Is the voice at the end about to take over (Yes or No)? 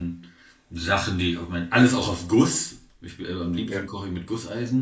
No